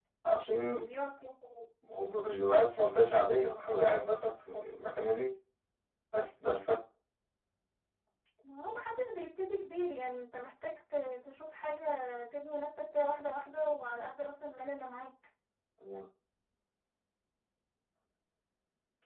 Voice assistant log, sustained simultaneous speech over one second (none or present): none